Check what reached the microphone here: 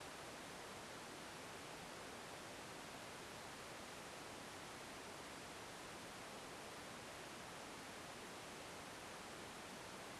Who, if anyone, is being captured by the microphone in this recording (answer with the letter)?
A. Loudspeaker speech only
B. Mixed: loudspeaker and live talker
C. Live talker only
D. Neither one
D